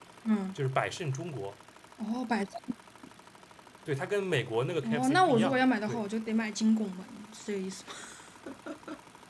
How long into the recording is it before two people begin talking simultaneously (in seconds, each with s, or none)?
4.8 s